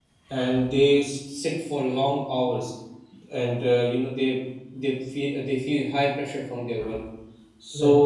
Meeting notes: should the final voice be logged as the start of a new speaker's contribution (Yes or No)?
No